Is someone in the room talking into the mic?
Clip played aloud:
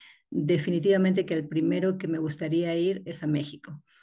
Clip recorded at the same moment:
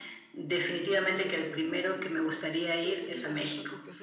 Yes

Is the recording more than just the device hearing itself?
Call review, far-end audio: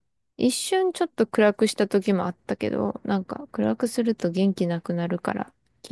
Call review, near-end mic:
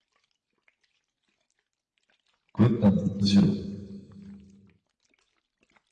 Yes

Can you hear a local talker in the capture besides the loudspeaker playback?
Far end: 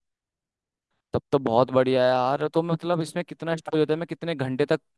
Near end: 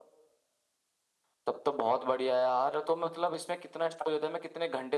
No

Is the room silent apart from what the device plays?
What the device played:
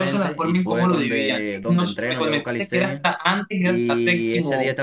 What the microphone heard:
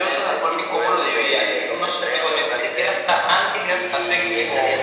Yes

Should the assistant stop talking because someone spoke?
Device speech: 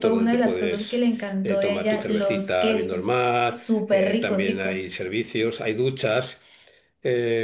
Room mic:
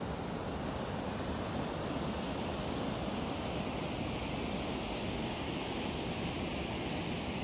No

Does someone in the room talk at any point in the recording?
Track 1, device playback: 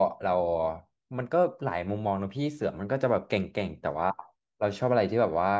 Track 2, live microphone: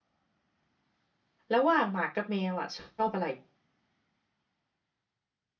Yes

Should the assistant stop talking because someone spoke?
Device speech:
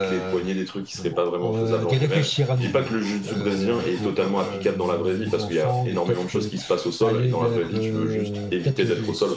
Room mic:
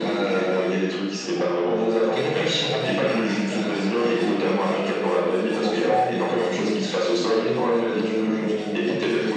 No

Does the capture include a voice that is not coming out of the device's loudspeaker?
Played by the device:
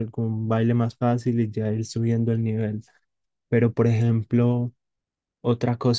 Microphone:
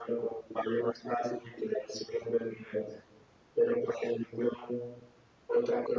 No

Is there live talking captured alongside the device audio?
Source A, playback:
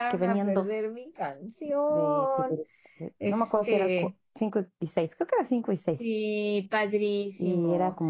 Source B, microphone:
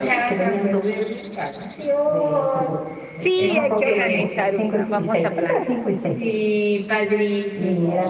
Yes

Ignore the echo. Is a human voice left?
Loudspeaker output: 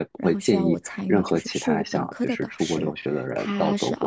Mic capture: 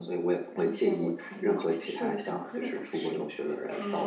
No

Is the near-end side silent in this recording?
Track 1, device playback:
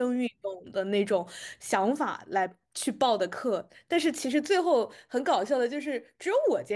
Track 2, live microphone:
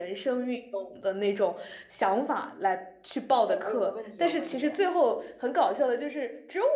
No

